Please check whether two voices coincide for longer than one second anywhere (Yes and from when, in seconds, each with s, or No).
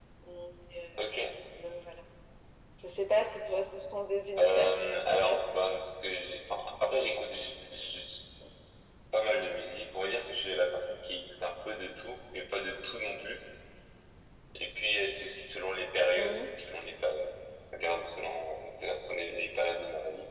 Yes, from 4.4 s